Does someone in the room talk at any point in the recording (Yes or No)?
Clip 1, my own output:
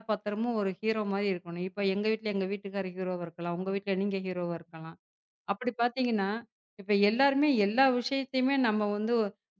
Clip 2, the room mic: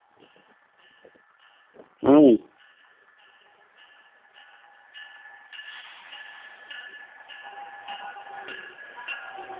Yes